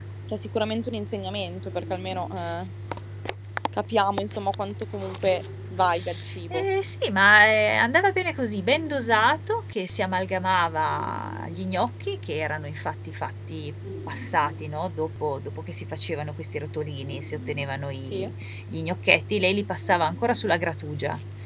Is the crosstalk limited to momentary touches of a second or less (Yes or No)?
Yes